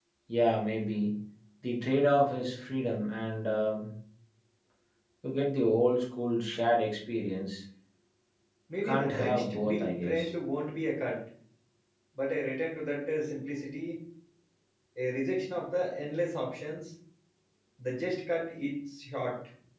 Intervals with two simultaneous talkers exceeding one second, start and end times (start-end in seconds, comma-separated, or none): 8.8-10.3